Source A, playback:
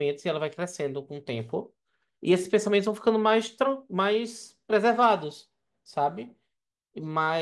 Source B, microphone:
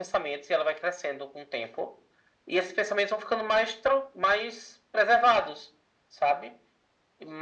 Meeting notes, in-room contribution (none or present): none